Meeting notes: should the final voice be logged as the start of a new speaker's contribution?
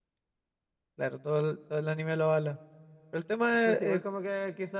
Yes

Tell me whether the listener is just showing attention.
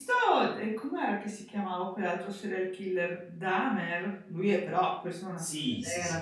No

